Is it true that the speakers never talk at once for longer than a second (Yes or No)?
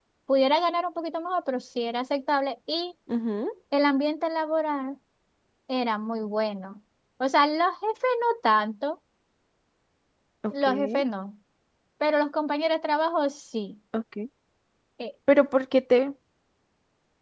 Yes